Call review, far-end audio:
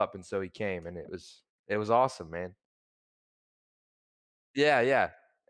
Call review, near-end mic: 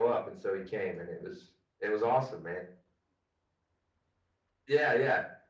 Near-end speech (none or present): none